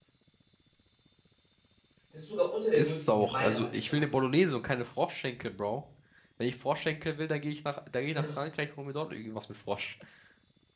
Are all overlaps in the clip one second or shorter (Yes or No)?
No